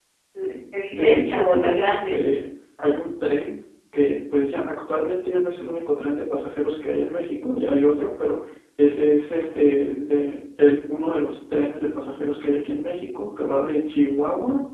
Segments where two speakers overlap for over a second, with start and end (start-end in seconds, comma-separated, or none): 0.9-2.2